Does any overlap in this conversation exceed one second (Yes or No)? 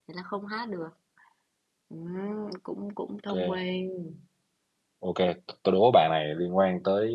No